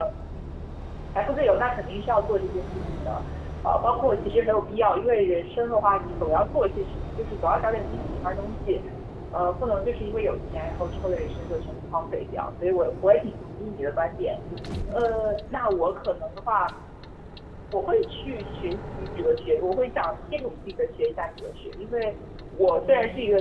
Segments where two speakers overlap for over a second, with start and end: none

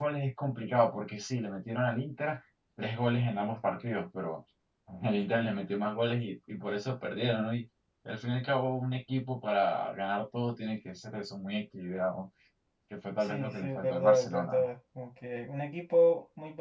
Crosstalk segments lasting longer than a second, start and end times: 13.2-14.5

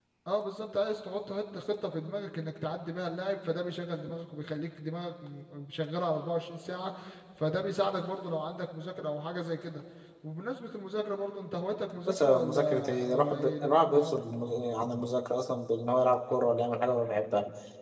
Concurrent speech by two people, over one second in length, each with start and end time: 12.1-14.2

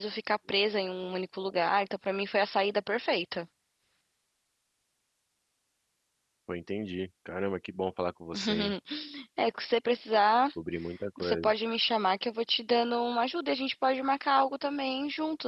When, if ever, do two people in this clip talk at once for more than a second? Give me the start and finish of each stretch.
none

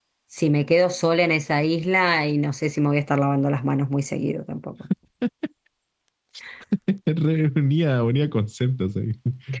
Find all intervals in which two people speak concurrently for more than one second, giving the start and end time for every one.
none

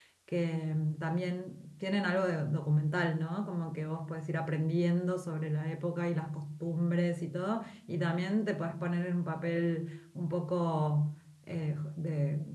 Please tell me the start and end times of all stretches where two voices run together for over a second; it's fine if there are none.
none

